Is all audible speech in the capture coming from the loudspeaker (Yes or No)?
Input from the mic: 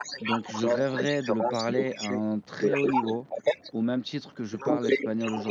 No